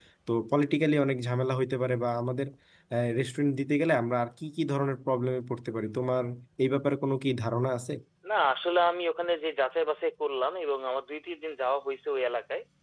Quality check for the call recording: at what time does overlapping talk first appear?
none

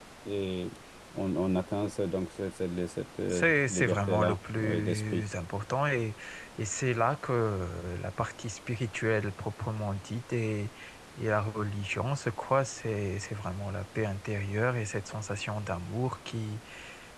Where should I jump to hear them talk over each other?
3.3 s

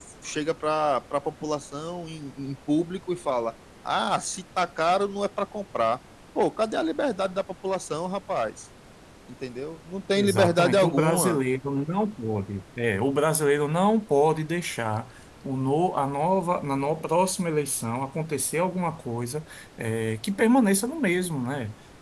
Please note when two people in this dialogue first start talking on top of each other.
10.2 s

